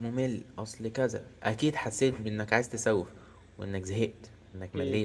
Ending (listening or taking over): taking over